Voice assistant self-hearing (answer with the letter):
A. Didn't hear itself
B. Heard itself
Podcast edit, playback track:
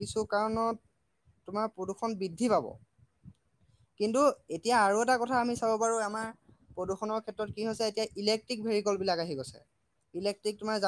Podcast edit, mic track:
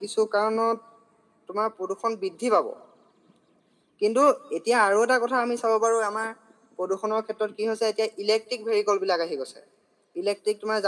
B